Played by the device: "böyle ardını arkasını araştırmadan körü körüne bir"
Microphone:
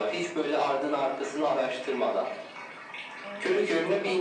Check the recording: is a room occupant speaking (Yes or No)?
Yes